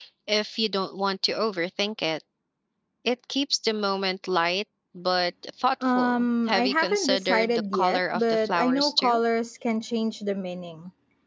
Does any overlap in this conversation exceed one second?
Yes, from 5.8 s

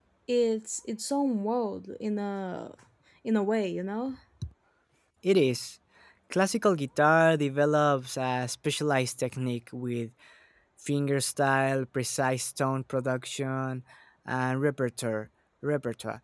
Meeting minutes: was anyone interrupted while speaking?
No

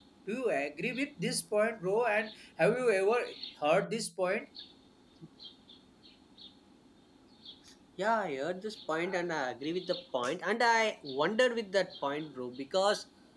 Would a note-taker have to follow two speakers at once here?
No

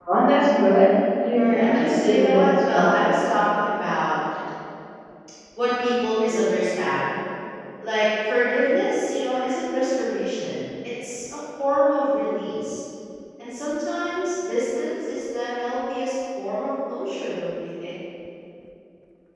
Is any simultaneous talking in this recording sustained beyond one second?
Yes, from 1.4 s

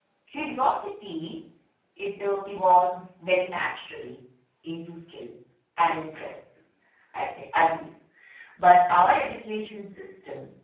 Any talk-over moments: No

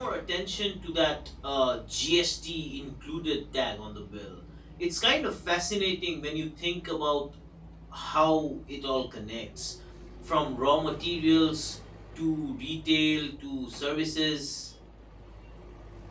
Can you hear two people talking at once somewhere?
No

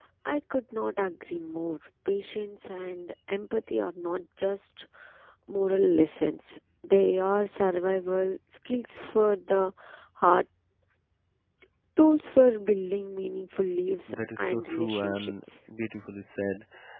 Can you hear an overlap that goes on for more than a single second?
Yes, from 14.1 s

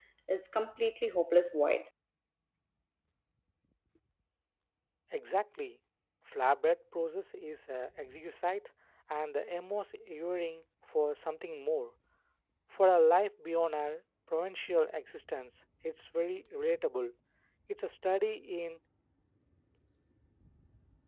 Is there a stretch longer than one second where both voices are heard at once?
No

